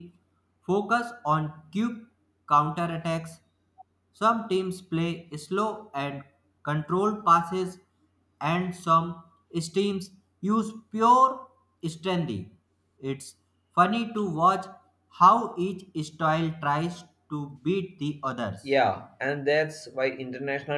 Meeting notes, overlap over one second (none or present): none